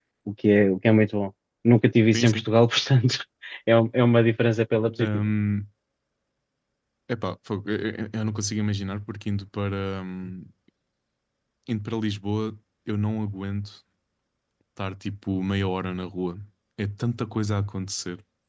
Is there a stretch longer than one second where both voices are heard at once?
No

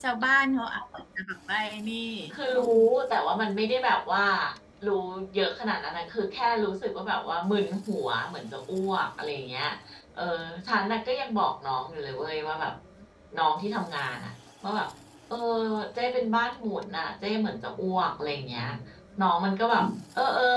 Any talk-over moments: No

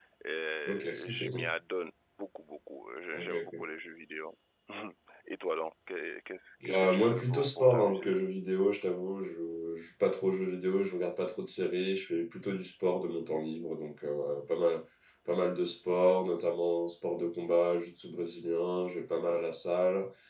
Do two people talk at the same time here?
Yes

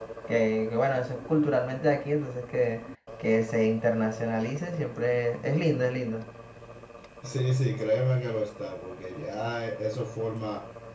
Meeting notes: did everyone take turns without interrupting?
Yes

